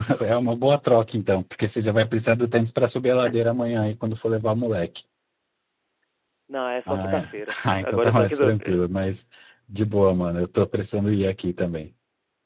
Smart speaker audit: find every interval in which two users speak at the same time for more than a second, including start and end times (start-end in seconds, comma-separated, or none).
6.9-8.8